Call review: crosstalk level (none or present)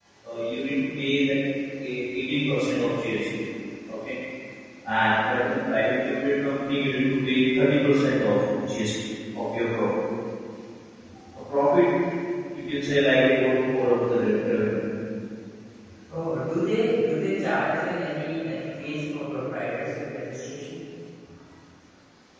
none